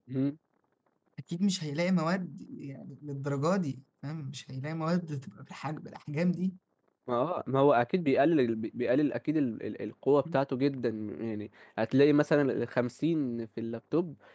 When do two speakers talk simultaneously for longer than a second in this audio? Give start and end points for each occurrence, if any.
none

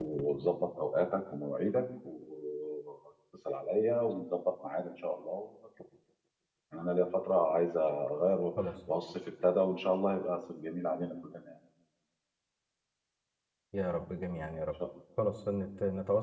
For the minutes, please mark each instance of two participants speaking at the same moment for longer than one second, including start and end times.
none

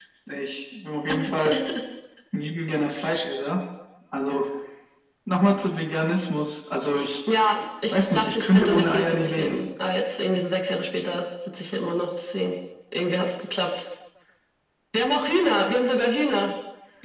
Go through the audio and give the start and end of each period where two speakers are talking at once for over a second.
7.9-9.6

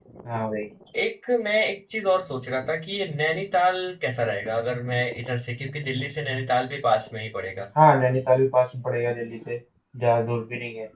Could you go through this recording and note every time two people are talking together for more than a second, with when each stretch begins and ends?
none

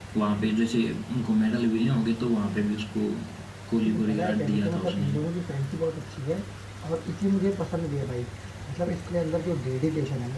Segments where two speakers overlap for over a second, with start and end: 3.8-5.1

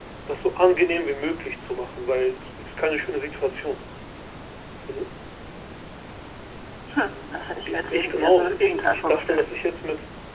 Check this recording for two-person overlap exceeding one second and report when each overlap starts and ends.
7.7-9.4

